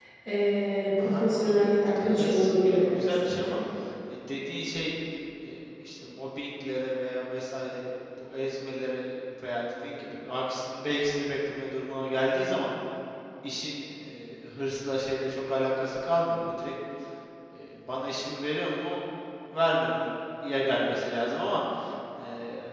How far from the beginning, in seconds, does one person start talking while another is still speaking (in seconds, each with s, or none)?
1.0 s